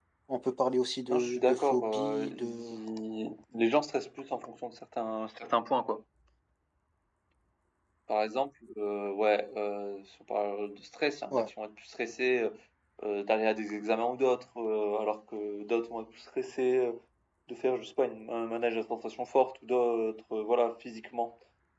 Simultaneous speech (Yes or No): Yes